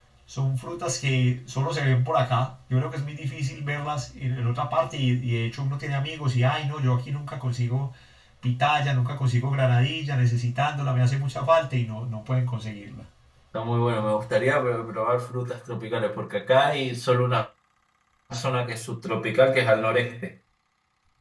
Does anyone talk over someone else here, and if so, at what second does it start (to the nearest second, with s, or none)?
none